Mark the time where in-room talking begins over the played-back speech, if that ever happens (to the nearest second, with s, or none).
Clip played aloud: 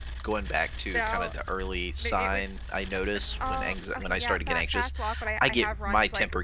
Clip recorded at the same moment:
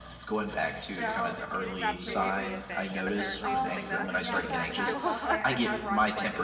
1 s